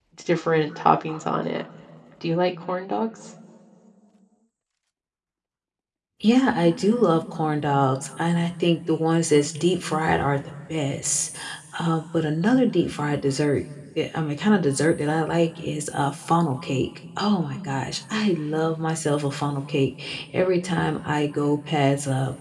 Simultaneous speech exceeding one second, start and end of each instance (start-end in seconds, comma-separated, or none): none